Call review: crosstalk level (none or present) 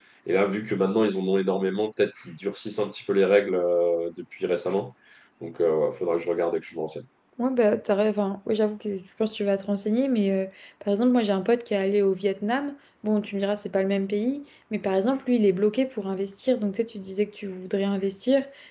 none